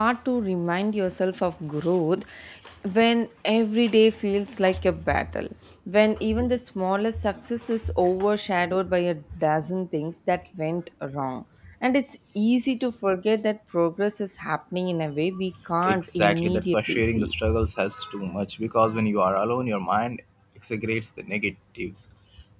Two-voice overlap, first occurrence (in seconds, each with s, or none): 15.8 s